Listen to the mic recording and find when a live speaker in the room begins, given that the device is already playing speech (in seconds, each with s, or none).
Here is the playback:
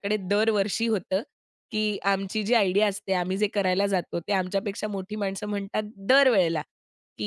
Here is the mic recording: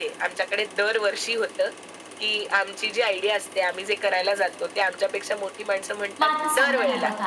6.2 s